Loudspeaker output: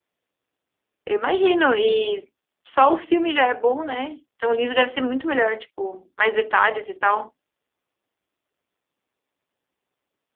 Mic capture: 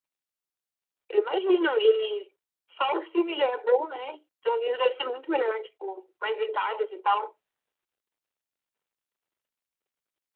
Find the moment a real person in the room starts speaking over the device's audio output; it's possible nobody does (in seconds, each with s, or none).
none